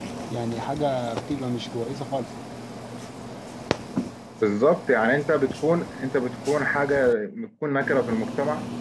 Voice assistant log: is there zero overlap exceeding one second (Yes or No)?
Yes